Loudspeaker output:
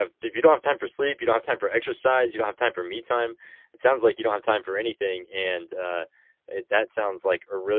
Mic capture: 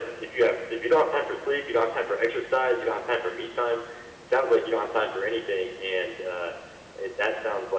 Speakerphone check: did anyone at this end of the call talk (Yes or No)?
No